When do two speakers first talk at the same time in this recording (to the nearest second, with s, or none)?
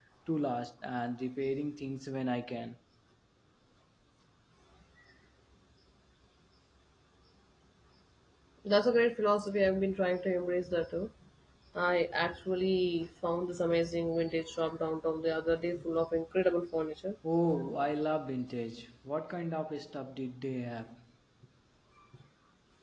none